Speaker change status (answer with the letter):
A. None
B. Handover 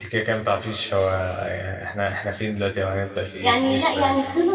B